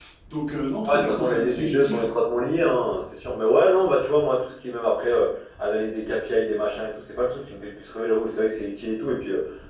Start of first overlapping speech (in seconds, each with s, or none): 0.8 s